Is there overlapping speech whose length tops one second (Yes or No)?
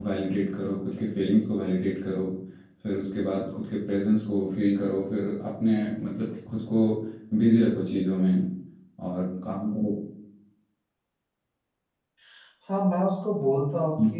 No